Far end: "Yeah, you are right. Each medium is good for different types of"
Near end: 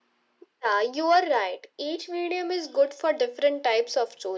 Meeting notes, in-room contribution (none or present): none